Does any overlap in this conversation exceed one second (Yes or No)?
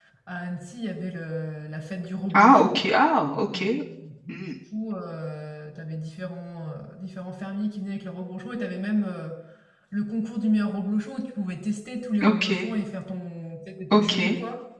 No